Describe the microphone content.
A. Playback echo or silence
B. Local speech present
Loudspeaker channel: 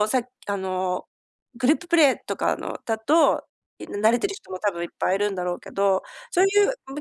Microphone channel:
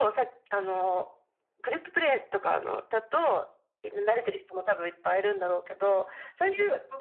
A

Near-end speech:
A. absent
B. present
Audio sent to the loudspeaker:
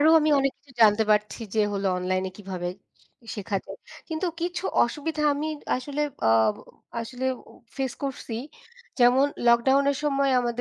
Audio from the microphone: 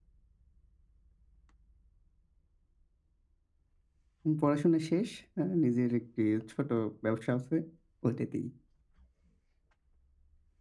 B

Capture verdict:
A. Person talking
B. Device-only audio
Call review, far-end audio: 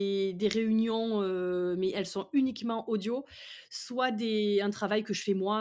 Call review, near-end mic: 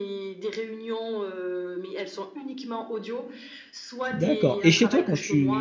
A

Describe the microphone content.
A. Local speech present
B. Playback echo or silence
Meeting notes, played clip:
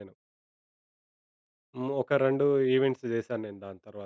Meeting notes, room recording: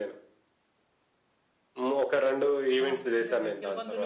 A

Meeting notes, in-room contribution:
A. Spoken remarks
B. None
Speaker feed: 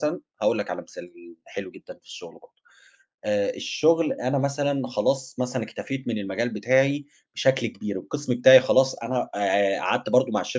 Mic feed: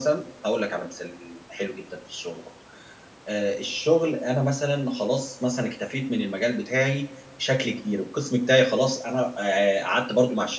B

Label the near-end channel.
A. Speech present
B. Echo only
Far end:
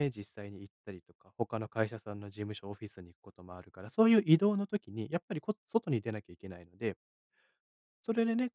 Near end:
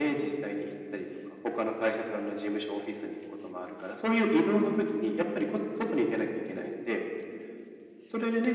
B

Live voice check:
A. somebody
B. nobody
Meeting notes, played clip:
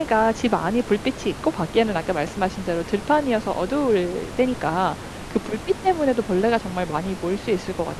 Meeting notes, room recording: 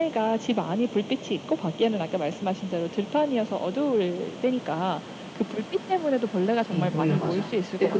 A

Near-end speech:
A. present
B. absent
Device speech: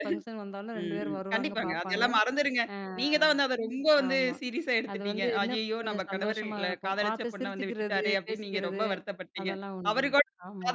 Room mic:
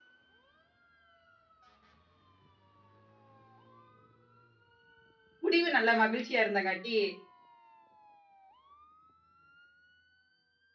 A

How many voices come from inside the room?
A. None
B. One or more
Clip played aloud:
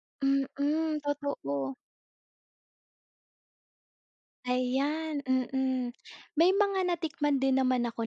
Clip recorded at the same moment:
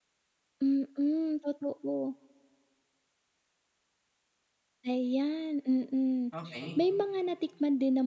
B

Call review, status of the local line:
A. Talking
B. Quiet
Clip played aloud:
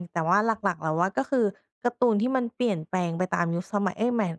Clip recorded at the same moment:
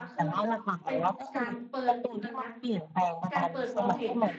A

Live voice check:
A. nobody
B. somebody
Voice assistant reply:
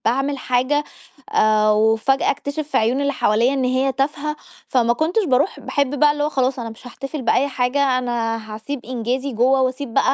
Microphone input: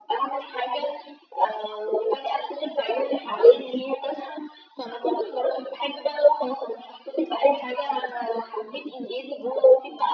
A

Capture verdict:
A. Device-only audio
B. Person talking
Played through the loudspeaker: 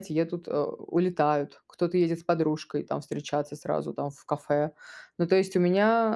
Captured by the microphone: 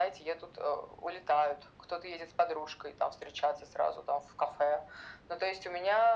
A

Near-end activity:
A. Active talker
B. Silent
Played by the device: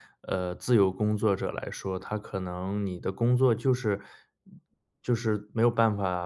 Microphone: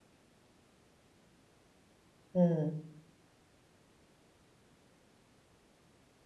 A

